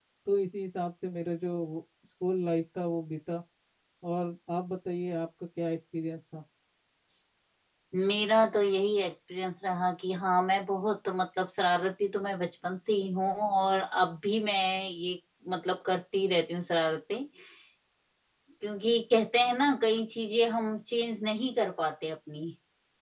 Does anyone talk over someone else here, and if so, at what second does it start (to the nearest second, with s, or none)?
none